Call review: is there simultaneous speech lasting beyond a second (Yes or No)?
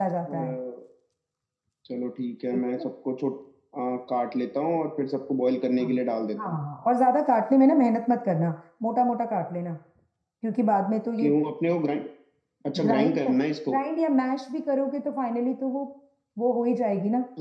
No